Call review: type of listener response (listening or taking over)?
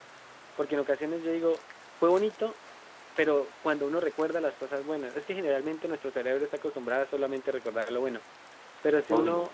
listening